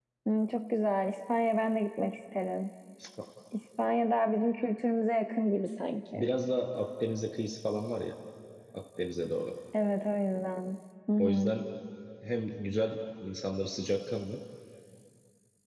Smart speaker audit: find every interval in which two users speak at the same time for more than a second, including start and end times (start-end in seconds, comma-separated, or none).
none